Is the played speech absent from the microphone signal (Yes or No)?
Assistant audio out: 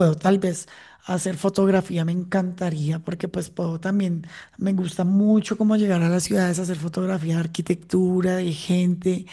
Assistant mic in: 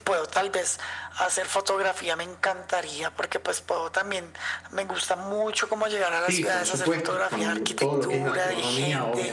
No